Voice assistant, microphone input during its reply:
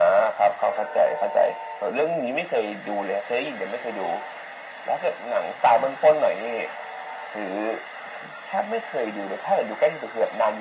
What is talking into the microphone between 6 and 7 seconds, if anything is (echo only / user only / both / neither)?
echo only